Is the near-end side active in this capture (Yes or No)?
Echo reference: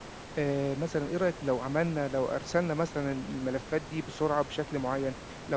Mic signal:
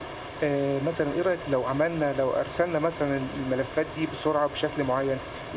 No